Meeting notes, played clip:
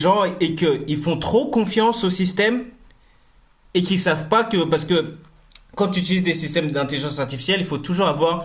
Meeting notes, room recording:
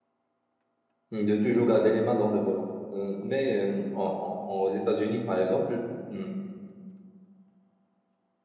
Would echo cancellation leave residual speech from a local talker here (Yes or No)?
Yes